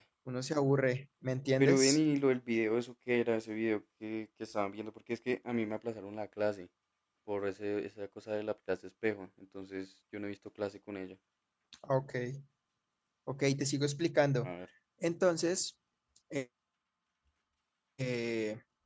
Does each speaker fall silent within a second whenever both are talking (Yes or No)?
Yes